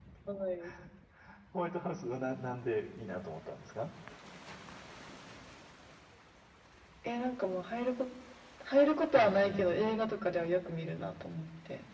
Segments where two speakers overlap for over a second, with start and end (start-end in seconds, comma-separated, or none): 9.2-10.4